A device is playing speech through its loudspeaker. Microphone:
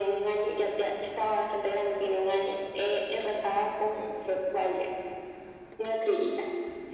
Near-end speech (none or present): none